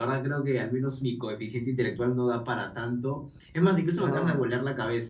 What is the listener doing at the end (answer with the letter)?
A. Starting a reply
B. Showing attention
B